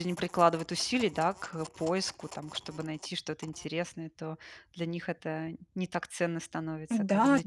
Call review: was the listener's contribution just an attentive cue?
No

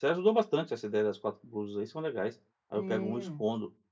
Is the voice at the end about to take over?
No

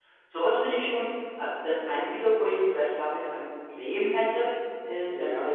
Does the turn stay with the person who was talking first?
Yes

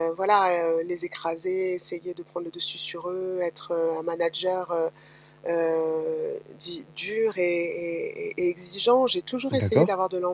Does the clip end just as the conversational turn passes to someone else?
No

